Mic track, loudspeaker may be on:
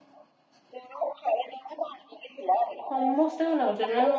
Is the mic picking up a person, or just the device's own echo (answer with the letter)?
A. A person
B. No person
A